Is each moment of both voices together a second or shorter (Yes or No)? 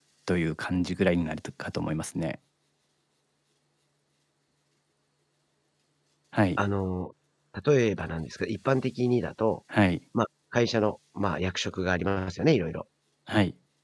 Yes